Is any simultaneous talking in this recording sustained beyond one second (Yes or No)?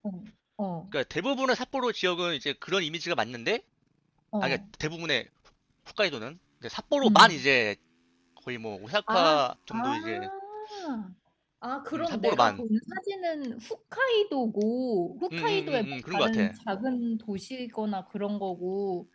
Yes